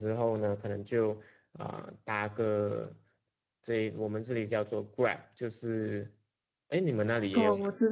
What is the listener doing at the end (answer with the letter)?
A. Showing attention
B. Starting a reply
B